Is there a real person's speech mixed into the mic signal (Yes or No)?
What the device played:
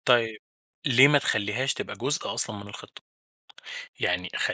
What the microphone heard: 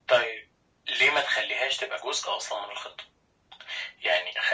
No